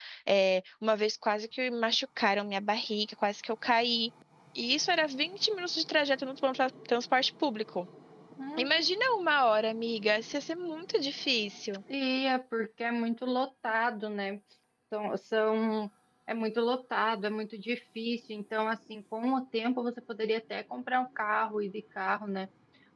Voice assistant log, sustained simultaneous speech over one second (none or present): none